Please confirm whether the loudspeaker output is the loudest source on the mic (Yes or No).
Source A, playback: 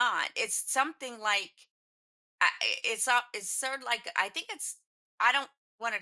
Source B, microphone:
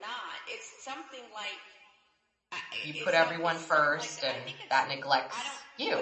No